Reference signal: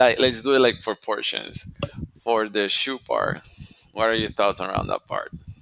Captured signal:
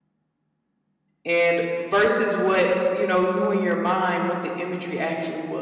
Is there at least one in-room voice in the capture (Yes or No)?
Yes